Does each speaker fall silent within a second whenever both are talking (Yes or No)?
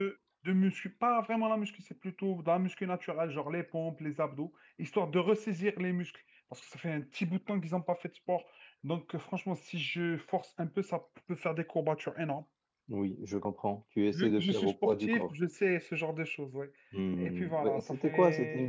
No